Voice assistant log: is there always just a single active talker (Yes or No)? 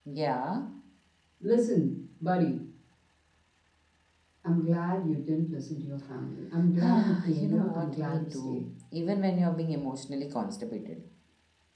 No